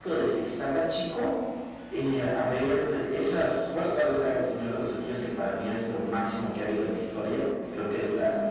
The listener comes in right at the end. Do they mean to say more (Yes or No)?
Yes